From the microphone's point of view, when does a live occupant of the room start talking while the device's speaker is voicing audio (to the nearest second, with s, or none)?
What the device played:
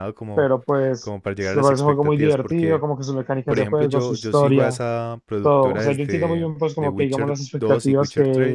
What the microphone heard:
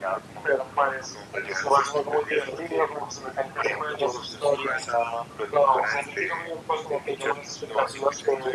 none